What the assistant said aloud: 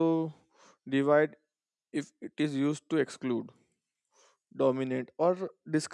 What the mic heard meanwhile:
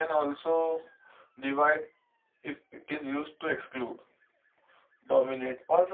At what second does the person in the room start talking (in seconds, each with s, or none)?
none